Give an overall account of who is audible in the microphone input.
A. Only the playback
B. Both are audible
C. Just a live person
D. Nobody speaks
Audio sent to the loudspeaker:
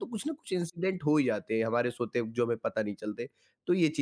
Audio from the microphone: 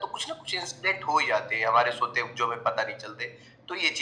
A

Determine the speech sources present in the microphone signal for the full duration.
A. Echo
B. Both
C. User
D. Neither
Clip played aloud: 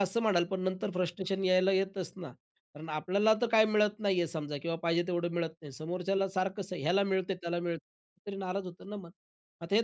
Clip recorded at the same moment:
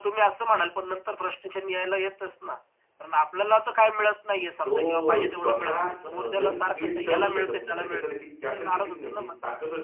B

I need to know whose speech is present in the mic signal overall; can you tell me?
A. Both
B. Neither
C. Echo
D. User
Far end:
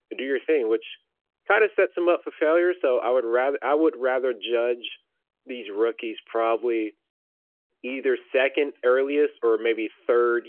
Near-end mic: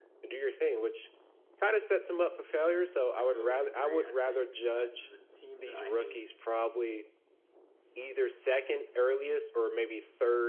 A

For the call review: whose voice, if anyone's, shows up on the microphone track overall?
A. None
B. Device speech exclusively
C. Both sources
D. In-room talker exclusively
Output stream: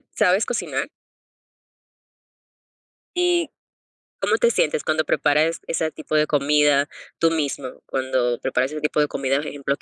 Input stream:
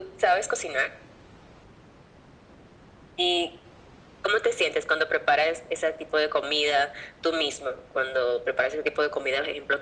B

